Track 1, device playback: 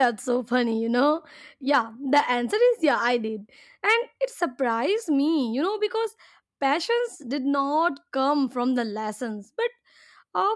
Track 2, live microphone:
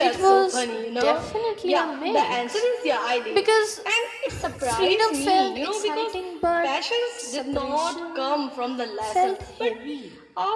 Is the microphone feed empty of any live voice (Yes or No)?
No